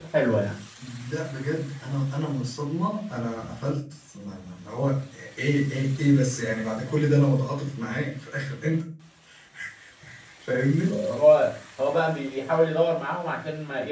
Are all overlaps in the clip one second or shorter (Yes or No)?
Yes